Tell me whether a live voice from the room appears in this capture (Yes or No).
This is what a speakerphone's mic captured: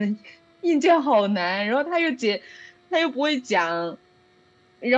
Yes